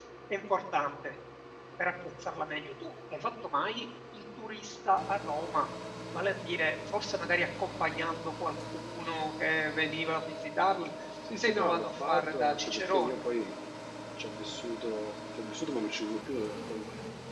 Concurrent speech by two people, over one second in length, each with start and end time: 11.4-13.2

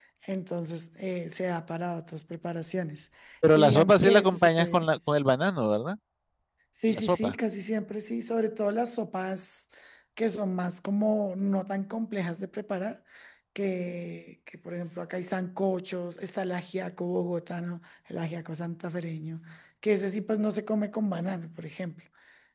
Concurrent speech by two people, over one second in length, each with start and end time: 3.5-4.9

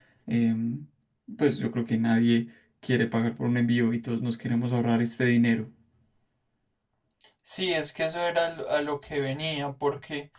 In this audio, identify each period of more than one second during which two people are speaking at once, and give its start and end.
none

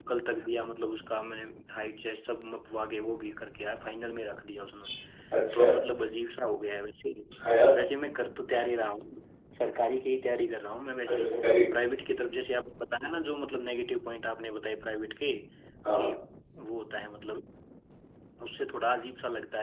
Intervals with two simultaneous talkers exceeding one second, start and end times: none

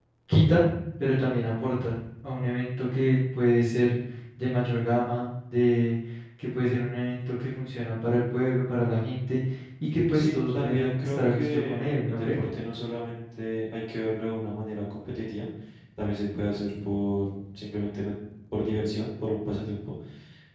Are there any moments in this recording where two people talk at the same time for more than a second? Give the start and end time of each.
10.1-12.4

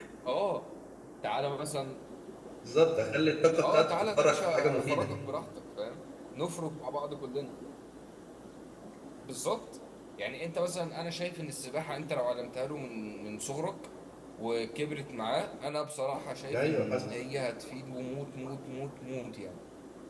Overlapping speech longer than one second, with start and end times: 3.6-5.1

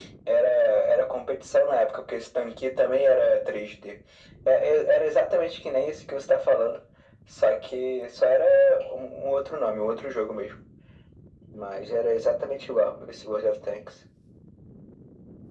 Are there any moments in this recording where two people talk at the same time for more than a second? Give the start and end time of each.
none

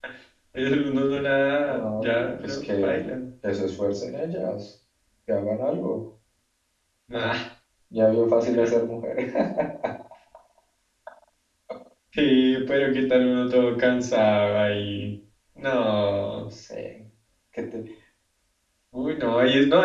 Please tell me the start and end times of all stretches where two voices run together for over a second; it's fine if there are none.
1.6-3.0

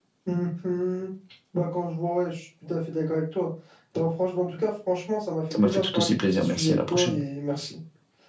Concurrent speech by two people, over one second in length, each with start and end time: 5.6-7.2

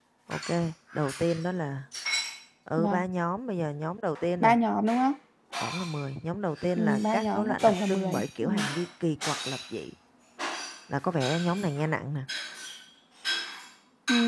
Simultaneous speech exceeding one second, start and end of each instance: 6.8-8.5

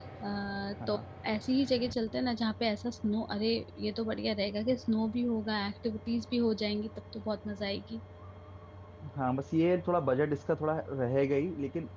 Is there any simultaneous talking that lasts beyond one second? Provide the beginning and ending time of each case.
none

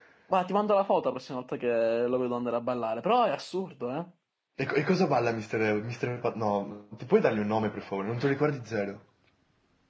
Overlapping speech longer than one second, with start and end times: none

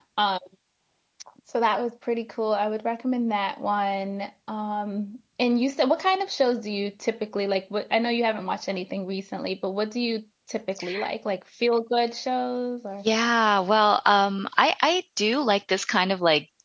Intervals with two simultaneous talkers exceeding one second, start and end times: none

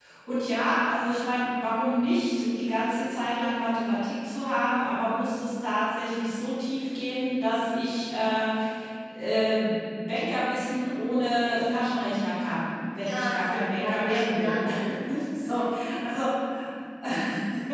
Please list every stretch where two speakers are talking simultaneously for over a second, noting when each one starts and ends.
13.0-14.6

